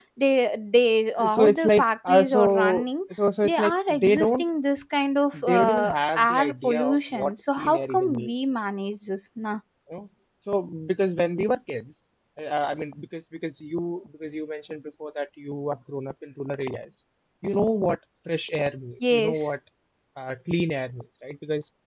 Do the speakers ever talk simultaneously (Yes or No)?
Yes